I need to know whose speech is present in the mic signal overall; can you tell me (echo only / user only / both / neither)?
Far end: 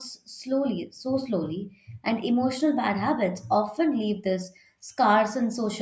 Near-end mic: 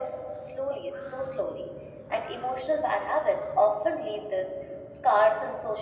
echo only